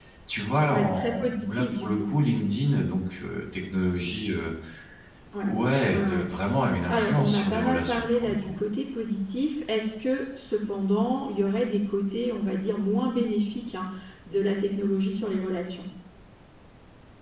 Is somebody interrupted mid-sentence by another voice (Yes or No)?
Yes